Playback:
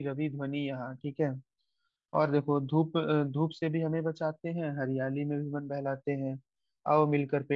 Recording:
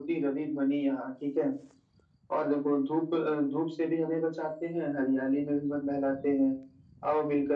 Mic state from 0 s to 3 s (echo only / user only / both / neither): echo only